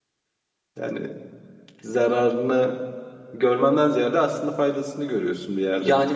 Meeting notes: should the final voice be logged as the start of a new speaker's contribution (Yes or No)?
Yes